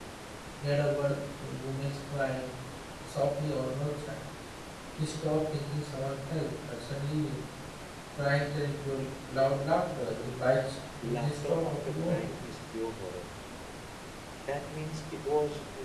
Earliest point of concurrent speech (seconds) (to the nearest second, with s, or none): 11 s